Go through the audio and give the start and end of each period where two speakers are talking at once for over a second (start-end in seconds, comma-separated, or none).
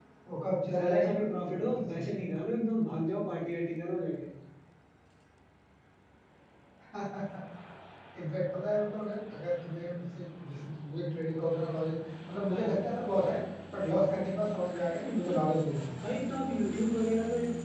0.8-2.2